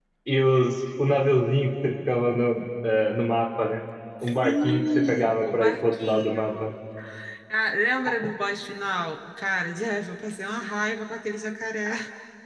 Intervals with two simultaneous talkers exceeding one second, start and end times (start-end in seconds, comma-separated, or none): 4.4-6.7